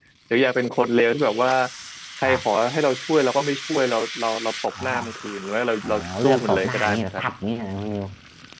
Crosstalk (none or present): present